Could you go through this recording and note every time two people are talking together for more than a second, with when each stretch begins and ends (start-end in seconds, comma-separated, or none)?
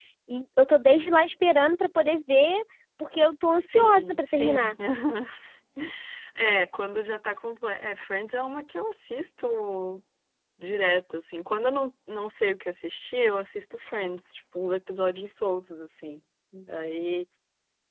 3.5-4.7